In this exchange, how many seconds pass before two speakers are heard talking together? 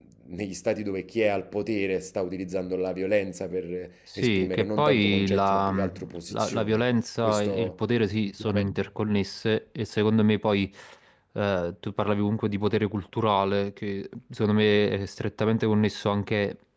4.1 s

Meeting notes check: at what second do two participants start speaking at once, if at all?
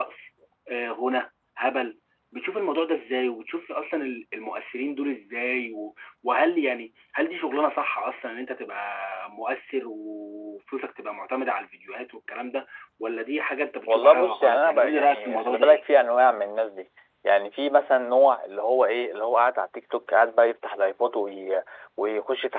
13.9 s

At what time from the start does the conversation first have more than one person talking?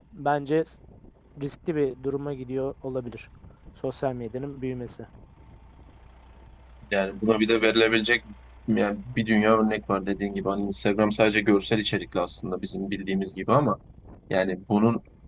none

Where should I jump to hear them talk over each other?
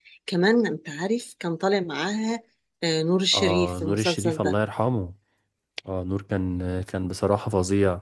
3.3 s

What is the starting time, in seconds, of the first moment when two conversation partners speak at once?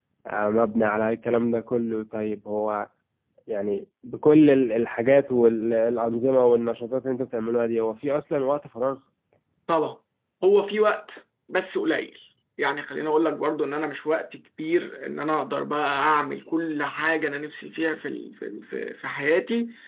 none

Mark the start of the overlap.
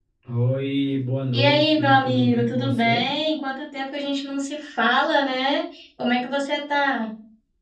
1.3 s

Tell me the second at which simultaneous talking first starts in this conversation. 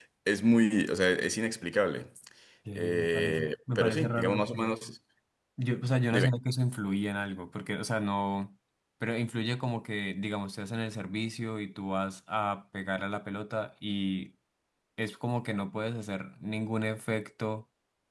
2.8 s

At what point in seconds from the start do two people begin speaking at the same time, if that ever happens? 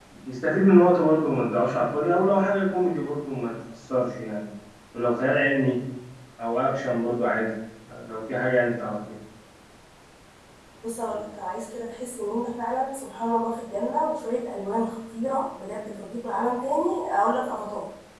none

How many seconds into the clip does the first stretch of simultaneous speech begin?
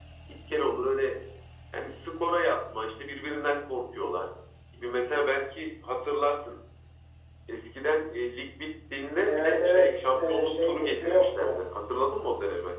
9.3 s

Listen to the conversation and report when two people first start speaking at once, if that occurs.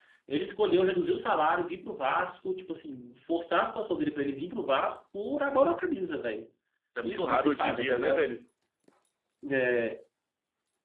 7.0 s

